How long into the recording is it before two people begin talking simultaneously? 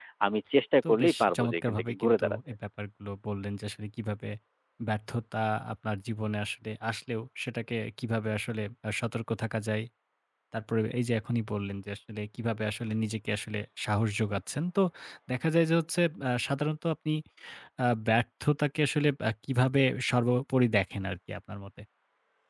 0.9 s

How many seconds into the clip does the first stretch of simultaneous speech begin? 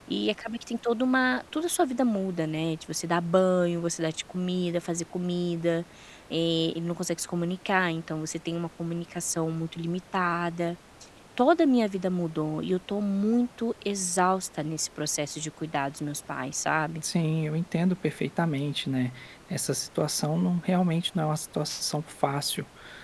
none

